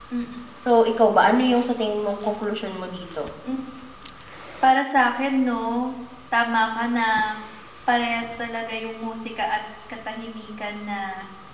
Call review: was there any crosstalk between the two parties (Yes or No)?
No